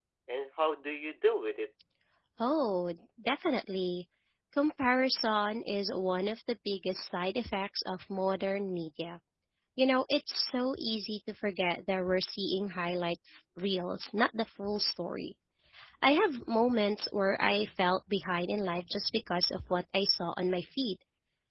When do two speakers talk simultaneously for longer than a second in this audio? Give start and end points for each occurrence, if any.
none

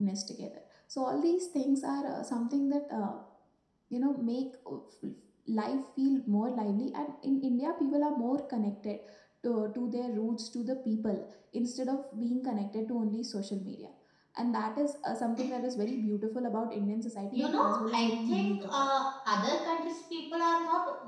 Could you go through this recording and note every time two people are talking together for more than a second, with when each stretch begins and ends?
17.3-18.9

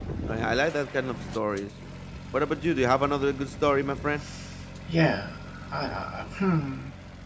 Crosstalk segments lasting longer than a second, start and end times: none

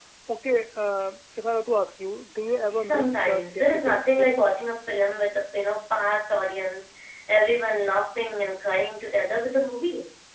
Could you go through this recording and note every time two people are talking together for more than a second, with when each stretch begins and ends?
2.7-4.5

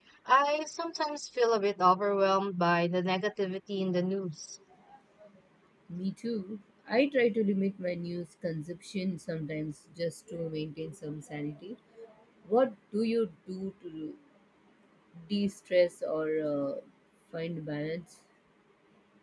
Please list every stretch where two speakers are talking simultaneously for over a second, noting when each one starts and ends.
none

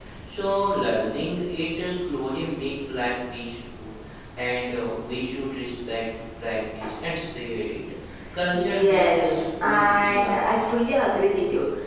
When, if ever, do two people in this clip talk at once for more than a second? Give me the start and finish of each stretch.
8.5-10.4

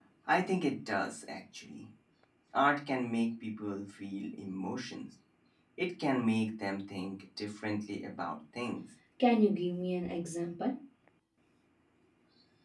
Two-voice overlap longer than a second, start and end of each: none

